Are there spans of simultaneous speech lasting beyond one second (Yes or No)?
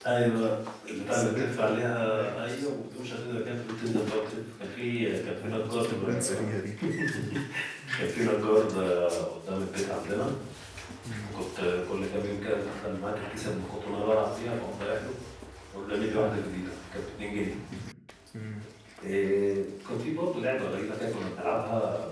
Yes